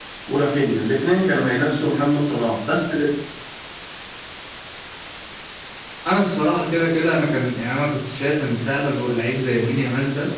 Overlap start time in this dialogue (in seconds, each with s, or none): none